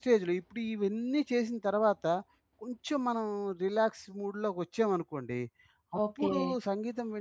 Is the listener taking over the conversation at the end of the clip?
No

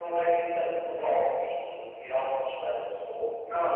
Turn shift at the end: Yes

